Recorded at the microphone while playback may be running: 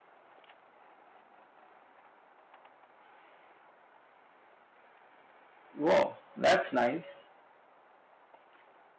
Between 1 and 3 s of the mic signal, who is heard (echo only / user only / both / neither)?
neither